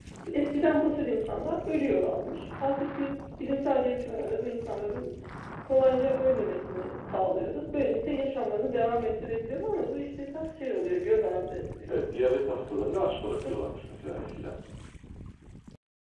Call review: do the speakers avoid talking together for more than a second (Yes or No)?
Yes